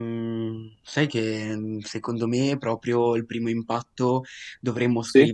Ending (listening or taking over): listening